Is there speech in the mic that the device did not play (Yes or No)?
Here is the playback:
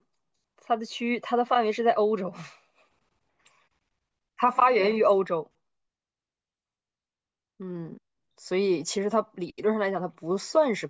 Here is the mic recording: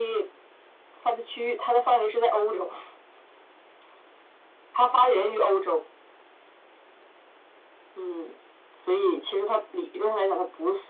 No